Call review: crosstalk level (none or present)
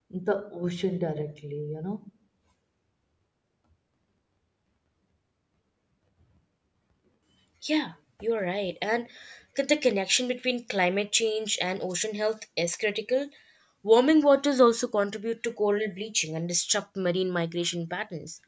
none